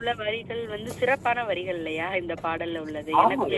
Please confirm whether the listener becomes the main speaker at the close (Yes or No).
Yes